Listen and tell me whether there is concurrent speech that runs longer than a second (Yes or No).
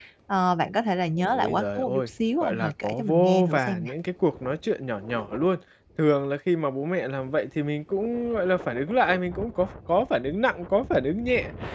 Yes